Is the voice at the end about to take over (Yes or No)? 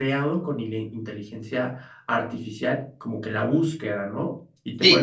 Yes